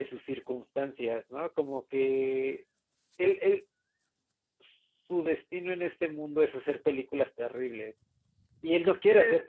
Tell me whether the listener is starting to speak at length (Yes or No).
No